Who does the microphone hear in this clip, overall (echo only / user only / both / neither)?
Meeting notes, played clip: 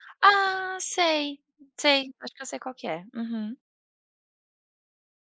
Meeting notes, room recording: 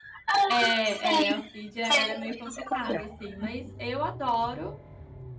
both